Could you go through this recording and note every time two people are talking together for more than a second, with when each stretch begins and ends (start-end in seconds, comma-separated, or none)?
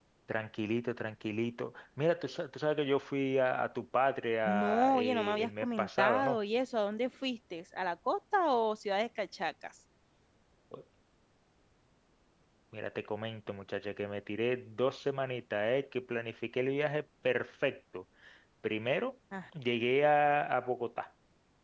4.5-6.4